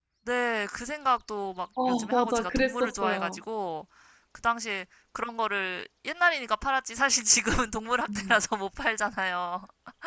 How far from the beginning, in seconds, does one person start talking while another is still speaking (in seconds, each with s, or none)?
1.9 s